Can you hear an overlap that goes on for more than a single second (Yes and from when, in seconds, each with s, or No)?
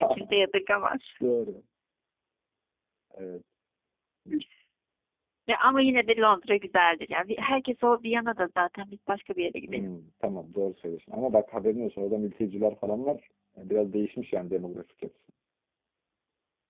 No